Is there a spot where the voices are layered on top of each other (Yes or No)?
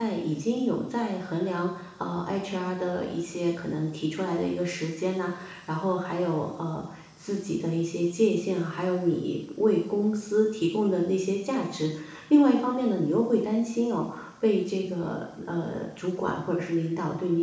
No